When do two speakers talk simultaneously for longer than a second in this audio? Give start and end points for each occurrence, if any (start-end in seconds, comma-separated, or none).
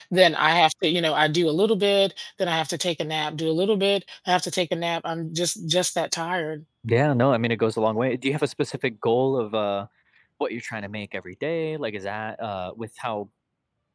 none